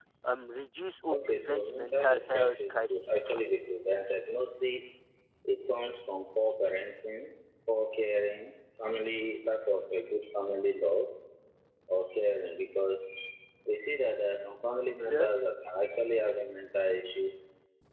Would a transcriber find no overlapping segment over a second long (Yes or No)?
No